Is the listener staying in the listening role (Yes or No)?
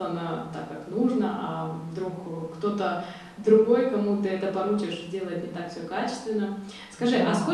Yes